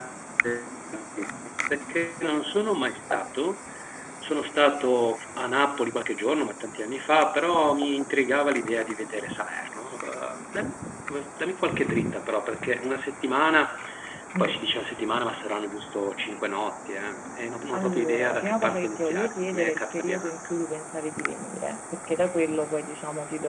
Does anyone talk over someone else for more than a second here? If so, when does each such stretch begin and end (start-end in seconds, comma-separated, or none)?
17.7-20.3